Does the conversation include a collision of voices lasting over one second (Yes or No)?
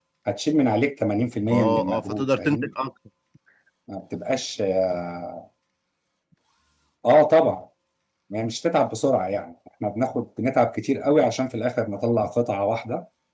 Yes